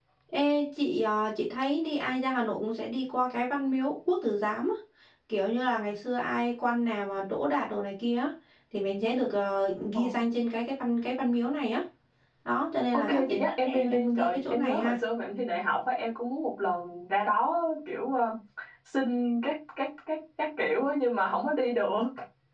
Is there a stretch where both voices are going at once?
Yes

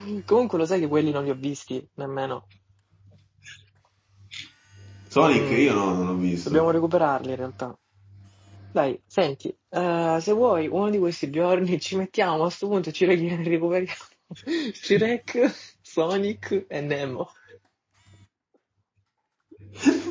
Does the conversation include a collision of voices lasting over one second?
No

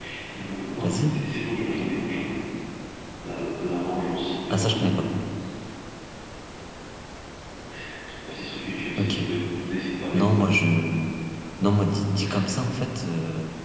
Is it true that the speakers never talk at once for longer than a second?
Yes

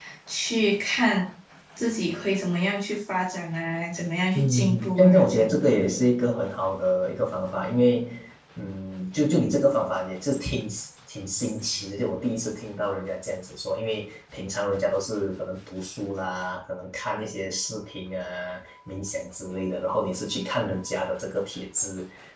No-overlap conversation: No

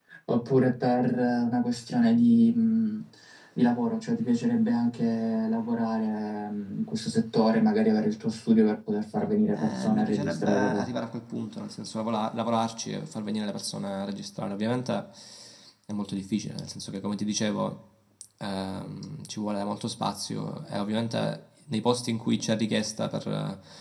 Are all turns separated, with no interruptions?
No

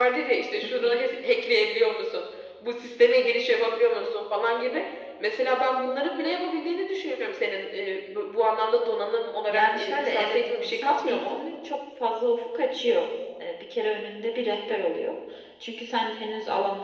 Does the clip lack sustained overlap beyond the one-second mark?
No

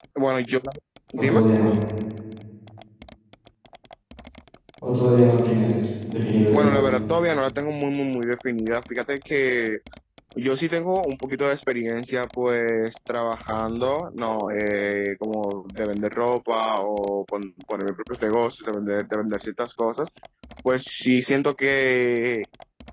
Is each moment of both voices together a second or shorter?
Yes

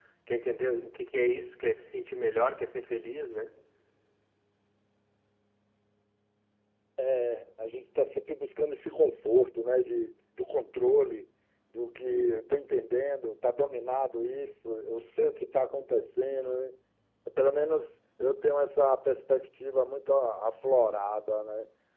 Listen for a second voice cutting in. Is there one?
No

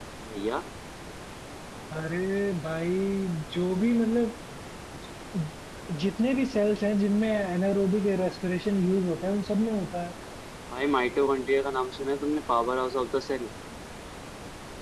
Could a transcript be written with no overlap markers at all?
Yes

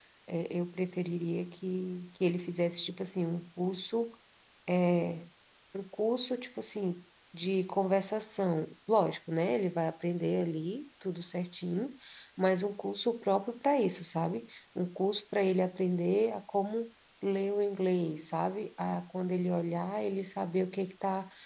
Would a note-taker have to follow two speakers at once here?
No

